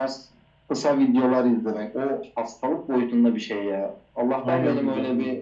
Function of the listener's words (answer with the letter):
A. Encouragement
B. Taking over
A